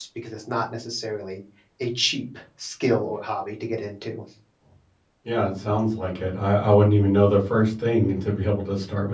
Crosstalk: none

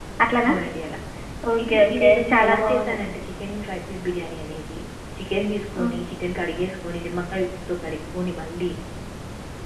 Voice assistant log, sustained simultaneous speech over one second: present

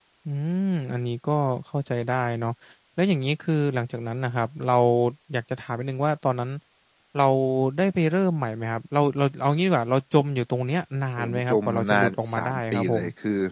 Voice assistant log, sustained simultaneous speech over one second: present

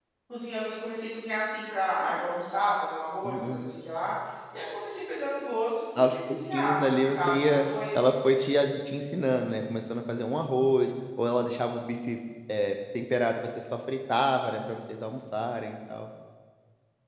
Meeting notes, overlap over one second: present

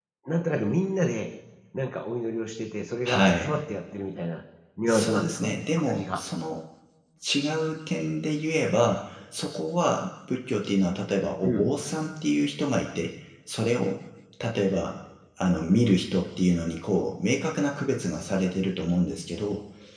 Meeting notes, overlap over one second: present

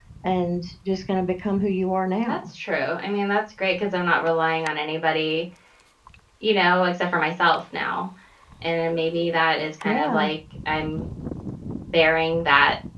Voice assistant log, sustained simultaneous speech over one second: none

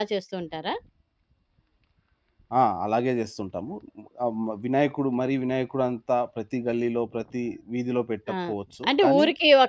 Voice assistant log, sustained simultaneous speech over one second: none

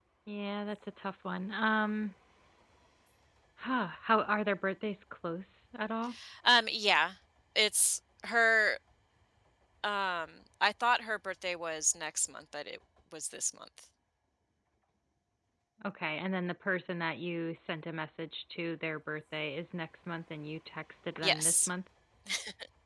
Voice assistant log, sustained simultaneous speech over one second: none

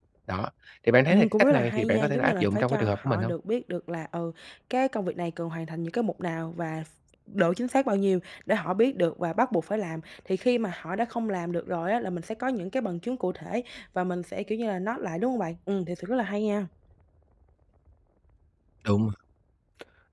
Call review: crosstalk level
present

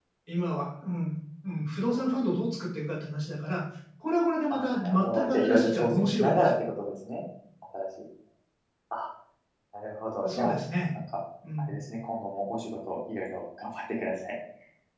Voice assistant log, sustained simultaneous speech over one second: present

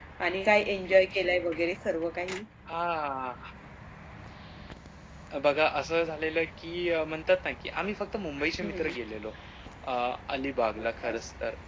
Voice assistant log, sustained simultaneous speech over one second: none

